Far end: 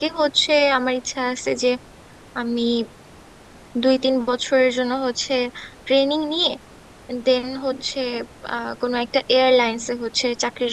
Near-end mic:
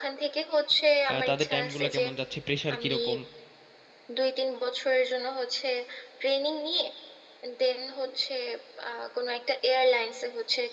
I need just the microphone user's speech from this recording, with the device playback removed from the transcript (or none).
আহ, তাদের টাইমগুলো কেমন যাচ্ছে প্রেশার কিরকম